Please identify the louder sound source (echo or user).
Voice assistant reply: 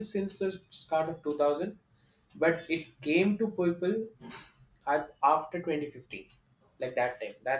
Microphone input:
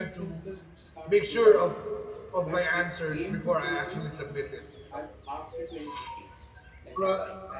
user